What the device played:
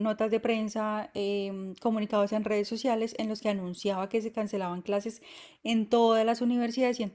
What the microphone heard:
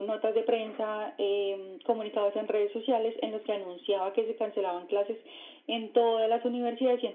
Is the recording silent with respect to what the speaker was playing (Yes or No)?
No